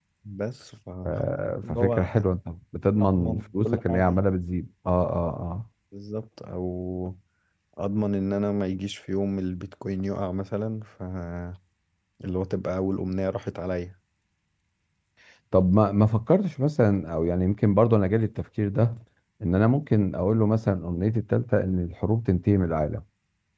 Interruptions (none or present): present